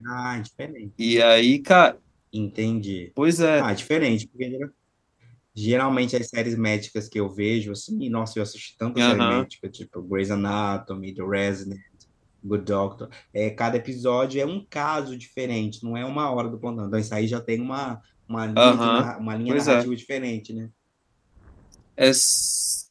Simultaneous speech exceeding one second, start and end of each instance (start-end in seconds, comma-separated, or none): none